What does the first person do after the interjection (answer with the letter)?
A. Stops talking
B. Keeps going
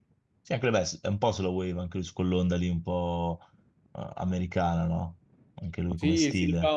A